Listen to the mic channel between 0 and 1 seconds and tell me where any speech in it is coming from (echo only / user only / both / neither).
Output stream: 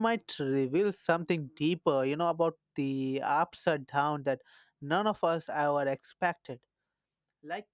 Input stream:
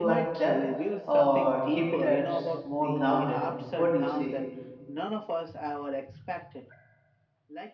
both